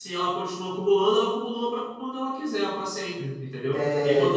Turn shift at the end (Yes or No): Yes